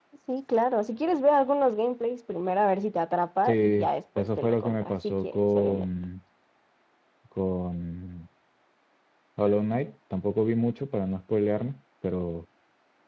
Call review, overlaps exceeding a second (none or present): present